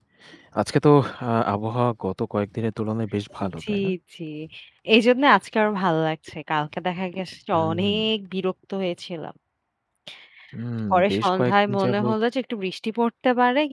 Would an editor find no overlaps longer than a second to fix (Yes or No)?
No